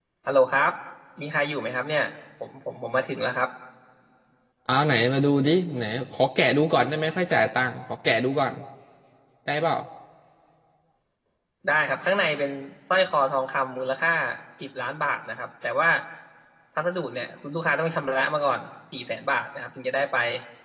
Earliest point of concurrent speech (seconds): none

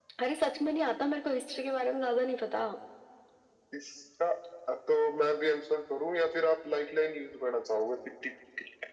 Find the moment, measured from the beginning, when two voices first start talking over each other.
none

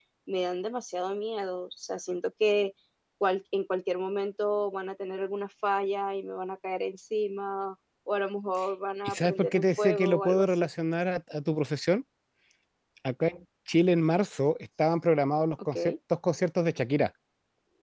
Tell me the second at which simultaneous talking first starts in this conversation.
9 s

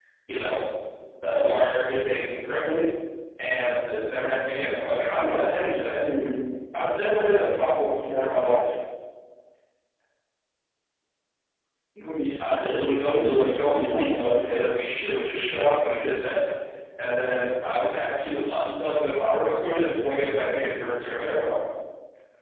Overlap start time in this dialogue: 12 s

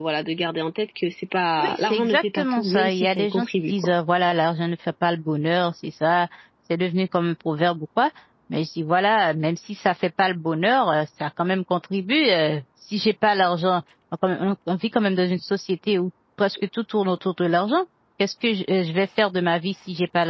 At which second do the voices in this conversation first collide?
2 s

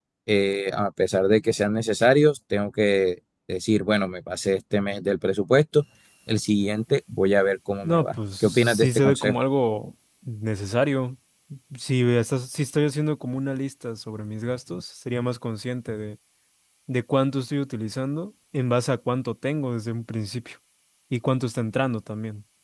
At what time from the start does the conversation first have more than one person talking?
8 s

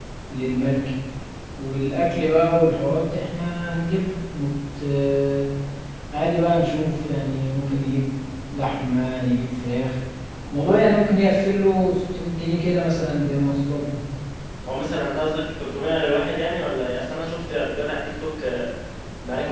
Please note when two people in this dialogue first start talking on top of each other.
none

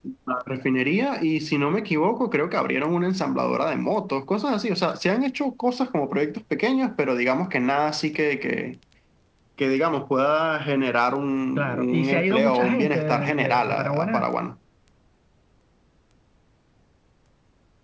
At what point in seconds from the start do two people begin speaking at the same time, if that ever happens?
12 s

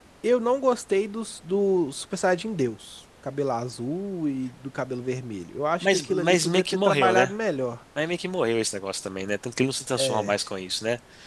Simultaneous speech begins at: 6 s

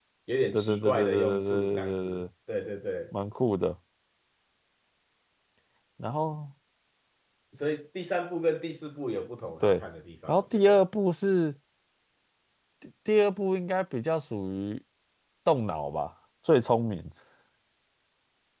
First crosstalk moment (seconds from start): 1 s

